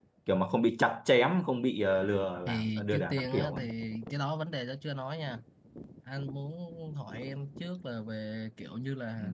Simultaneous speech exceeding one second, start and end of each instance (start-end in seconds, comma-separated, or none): 2.5-3.7